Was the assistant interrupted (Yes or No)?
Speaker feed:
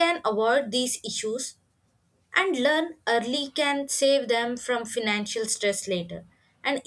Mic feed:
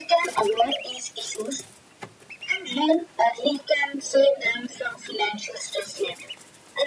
No